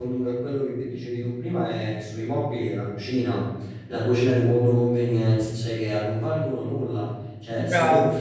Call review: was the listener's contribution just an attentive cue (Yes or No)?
Yes